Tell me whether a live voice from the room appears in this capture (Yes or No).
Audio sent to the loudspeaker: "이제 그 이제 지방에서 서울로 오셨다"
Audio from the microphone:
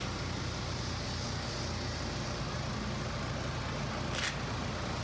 No